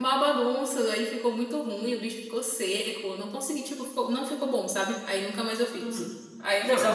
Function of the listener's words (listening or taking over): taking over